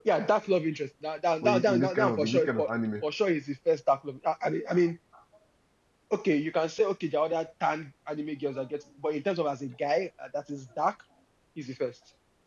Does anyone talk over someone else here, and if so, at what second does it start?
1.4 s

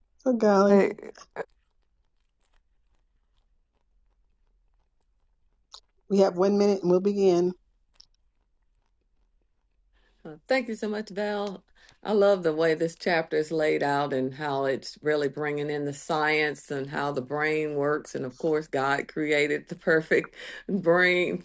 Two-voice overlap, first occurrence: none

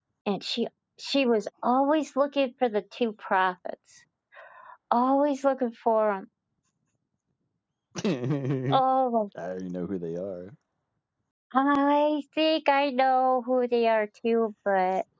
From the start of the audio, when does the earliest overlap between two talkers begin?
none

